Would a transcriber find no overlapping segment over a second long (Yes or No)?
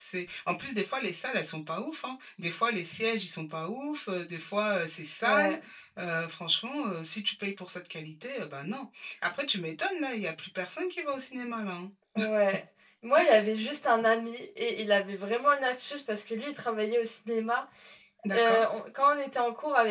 Yes